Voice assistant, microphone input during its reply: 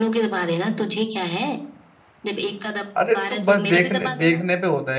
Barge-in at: 3.0 s

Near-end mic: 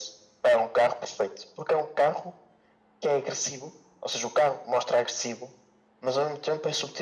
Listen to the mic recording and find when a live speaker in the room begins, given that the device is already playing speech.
none

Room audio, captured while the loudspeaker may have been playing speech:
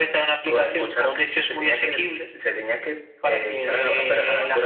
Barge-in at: none

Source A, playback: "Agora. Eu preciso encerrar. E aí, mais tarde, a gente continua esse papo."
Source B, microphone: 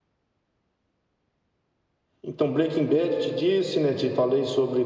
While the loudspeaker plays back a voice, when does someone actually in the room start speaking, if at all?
2.2 s

